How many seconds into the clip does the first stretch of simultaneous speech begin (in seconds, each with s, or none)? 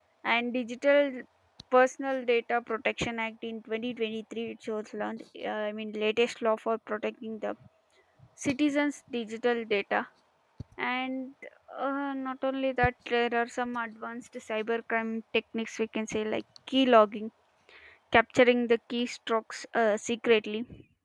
none